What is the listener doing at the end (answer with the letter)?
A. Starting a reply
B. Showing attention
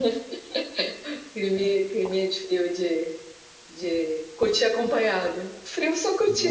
B